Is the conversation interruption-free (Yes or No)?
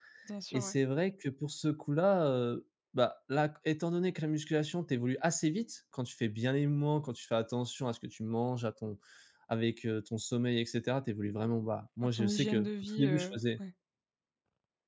No